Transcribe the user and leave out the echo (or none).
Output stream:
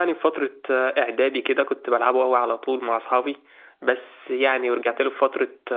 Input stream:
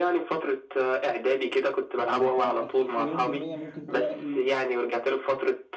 فانت اكيد مليون في المية ممكن تلاقي